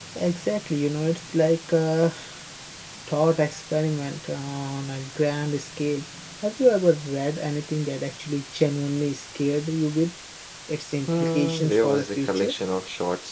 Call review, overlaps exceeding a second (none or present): present